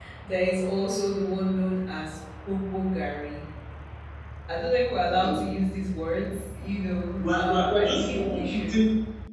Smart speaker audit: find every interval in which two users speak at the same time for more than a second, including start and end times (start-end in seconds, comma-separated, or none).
7.2-8.7